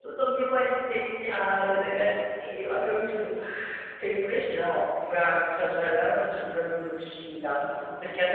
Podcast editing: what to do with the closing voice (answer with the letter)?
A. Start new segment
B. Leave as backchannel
B